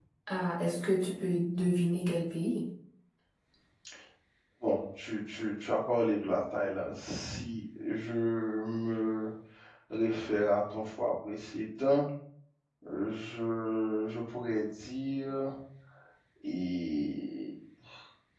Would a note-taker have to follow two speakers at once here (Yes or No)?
No